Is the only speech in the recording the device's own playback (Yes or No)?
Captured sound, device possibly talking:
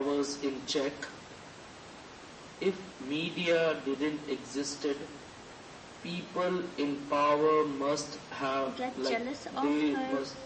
No